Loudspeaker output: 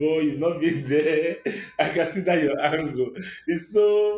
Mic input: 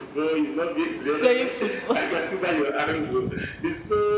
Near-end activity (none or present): present